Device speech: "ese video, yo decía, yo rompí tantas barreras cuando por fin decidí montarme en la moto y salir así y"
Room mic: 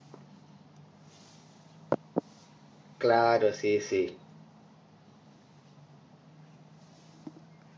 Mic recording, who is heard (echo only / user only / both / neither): user only